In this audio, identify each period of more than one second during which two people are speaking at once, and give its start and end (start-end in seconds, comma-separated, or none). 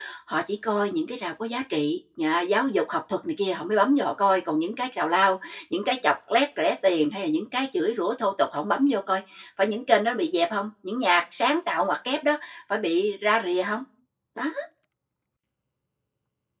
none